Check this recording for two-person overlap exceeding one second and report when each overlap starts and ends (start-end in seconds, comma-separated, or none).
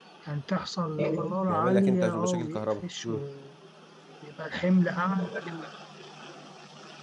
1.5-3.2